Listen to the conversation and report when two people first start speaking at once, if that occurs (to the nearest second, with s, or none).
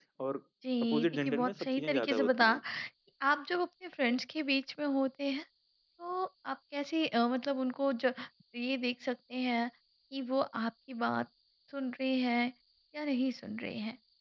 1 s